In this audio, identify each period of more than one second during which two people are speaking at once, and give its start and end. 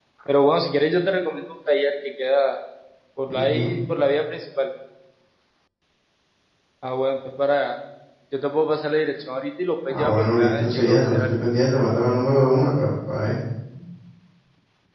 9.9-11.3

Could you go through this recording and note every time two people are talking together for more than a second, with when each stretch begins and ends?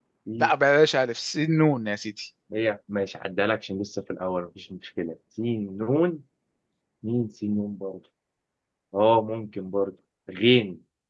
none

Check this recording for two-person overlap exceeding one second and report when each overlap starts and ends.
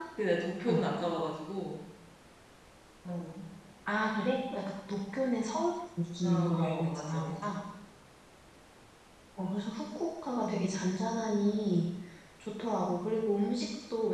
6.2-7.6

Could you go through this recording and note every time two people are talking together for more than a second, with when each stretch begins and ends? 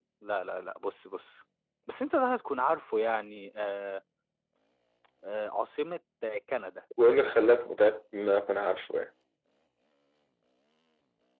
none

